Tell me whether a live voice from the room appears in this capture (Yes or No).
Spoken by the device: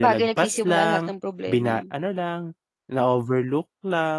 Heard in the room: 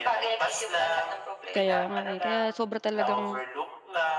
Yes